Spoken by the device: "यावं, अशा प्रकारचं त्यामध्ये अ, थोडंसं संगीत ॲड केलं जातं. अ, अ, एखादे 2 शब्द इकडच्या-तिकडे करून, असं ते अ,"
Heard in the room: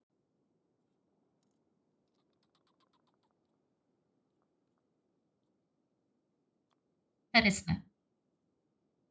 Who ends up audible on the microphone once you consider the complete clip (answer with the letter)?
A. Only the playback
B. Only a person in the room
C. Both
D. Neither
B